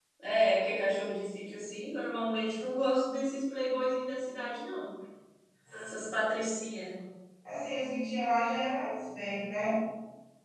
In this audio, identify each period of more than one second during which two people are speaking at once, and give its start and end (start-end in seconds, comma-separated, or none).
none